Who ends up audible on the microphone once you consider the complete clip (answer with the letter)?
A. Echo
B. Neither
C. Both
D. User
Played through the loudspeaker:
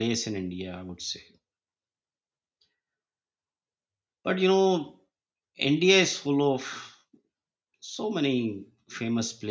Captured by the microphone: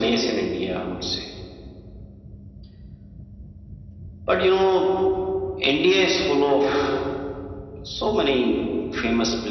A